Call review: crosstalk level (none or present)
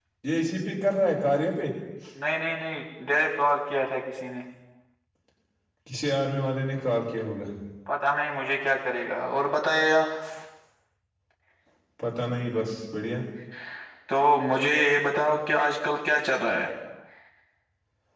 none